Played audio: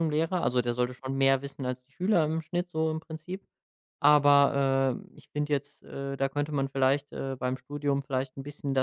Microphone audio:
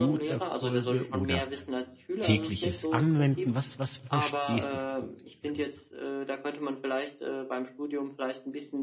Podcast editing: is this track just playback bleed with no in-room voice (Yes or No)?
No